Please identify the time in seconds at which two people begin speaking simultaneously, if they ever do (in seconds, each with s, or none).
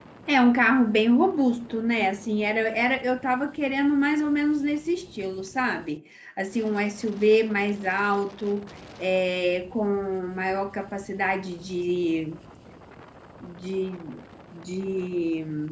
none